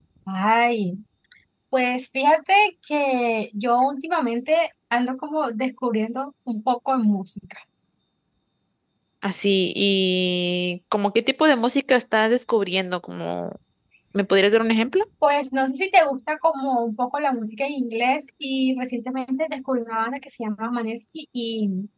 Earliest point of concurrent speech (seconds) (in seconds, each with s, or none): none